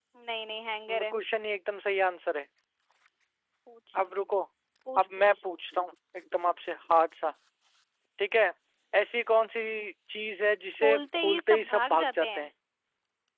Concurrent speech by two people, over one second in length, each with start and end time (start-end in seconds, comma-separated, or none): 10.8-12.5